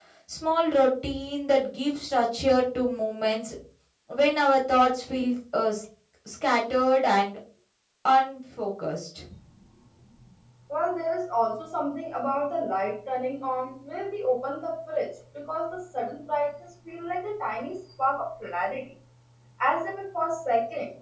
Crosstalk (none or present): none